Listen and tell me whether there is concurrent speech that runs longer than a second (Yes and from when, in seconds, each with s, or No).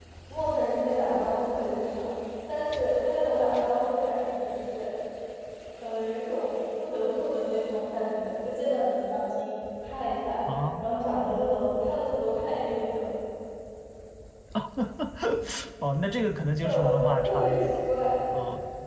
Yes, from 16.6 s